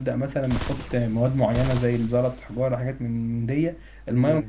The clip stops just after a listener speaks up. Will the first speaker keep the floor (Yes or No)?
No